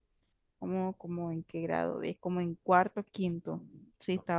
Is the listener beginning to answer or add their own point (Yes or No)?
No